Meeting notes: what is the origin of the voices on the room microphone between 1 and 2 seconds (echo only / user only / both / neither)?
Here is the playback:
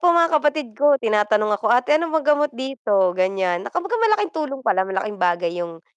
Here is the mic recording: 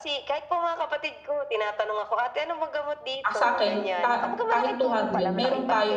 echo only